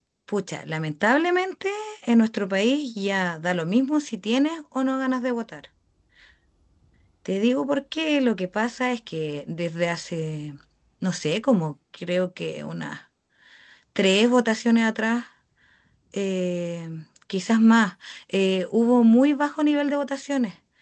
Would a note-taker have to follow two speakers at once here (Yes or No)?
No